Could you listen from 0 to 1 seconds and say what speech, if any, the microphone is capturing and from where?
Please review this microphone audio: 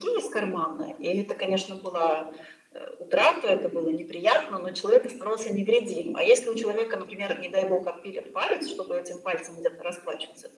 echo only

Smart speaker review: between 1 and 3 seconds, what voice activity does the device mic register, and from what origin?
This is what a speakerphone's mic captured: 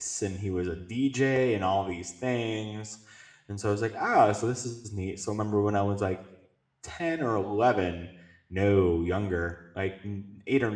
user only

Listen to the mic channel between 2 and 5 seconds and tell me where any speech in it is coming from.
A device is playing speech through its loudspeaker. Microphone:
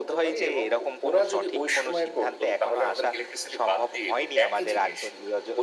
echo only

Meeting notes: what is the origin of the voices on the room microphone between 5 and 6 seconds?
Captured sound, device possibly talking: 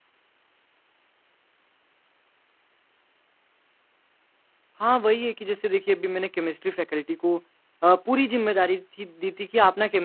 user only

